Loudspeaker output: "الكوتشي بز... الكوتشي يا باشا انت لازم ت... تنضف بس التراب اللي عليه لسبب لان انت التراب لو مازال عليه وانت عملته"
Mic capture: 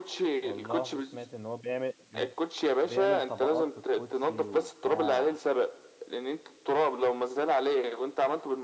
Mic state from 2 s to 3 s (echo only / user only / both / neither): both